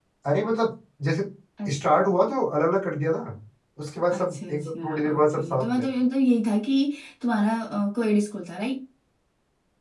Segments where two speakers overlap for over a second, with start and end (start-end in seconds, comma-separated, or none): 4.1-5.8